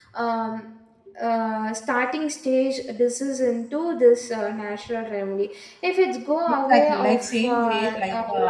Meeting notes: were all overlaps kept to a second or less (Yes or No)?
No